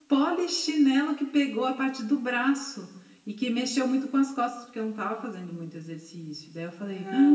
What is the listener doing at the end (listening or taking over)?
taking over